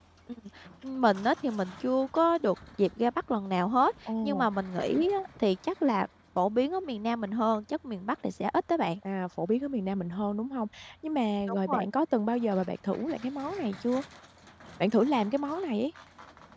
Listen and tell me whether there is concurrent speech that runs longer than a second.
No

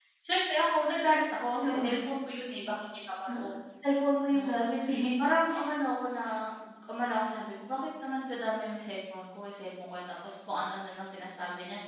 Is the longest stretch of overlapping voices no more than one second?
Yes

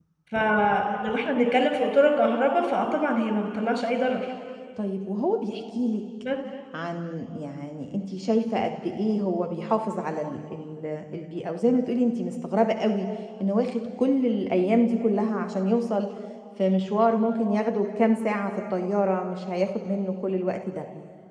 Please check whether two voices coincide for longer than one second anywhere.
No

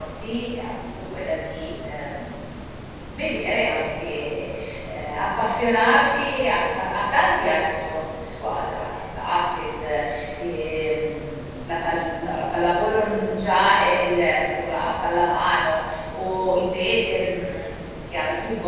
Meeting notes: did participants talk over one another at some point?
No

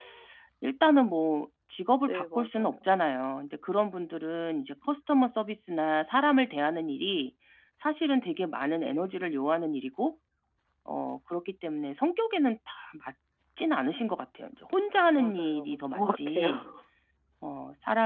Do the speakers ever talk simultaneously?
Yes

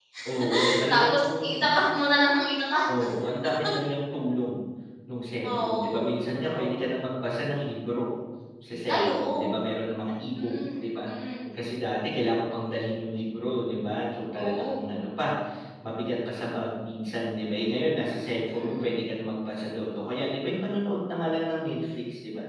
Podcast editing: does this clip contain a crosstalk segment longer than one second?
Yes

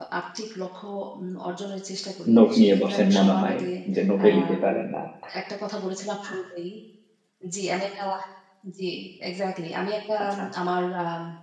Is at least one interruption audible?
Yes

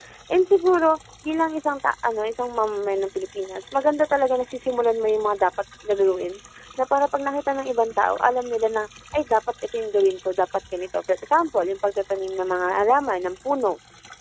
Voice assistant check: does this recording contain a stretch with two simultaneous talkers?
No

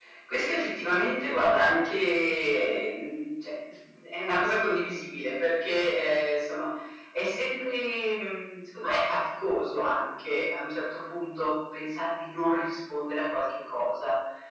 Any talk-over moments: No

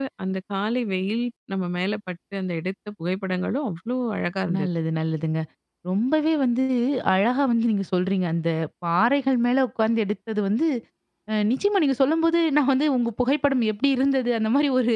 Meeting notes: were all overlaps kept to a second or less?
Yes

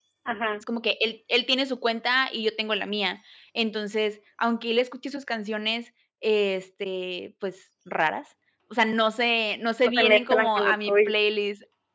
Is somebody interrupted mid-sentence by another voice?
Yes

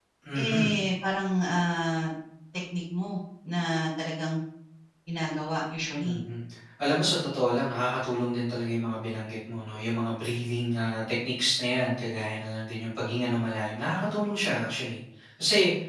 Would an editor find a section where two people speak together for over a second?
No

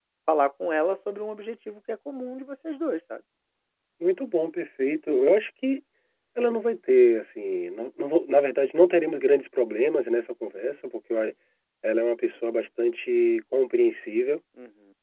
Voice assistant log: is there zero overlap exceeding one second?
Yes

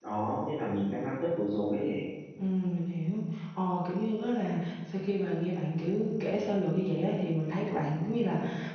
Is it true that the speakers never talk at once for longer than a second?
Yes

